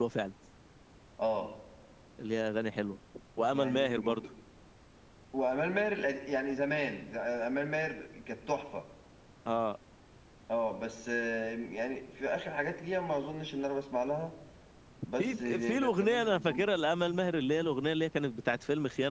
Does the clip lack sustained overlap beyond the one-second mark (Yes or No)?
No